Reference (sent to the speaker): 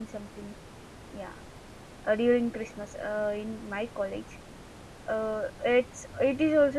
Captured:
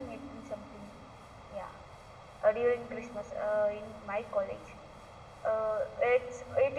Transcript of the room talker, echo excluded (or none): none